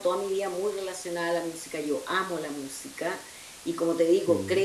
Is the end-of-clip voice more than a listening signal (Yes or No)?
No